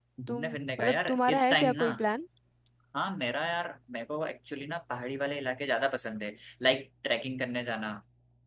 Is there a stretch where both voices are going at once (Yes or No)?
Yes